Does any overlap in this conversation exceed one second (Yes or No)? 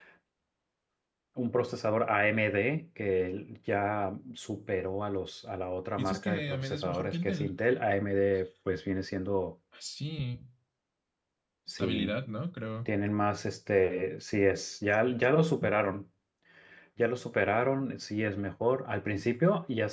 Yes